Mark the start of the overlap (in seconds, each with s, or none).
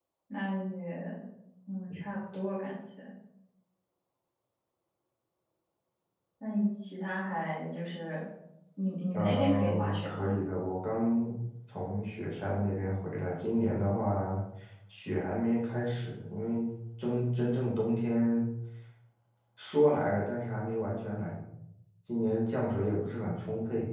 9.1 s